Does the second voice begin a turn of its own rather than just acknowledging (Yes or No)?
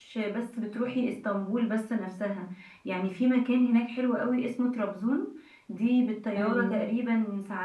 No